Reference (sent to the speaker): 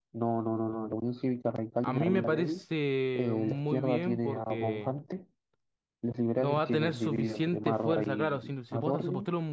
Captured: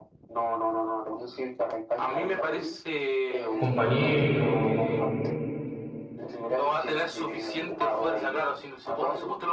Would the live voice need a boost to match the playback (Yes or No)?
No